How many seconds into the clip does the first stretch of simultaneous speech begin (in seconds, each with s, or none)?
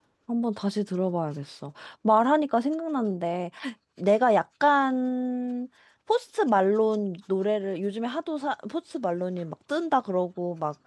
none